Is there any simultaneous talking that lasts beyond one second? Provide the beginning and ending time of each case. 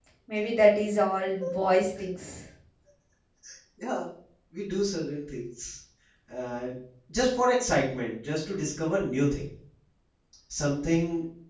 none

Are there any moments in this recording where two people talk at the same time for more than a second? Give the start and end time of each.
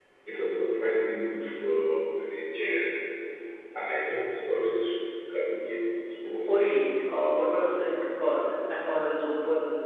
none

